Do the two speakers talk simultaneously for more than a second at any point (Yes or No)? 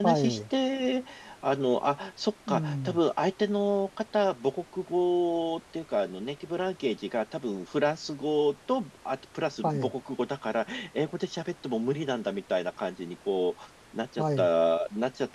No